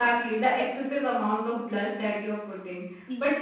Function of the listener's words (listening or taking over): listening